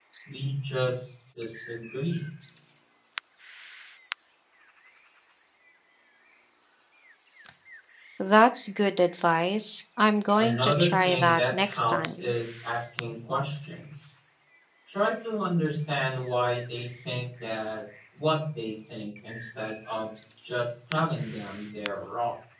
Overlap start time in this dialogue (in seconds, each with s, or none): 10.4 s